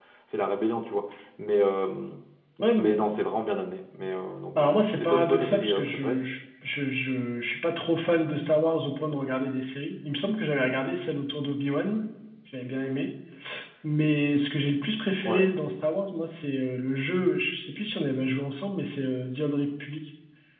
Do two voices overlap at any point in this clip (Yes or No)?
Yes